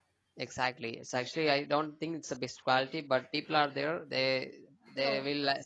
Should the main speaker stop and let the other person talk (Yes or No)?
No